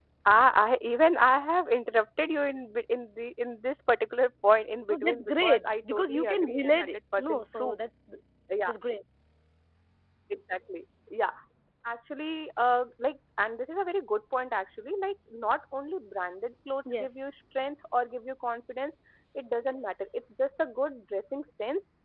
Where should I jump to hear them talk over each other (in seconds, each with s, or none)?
4.9 s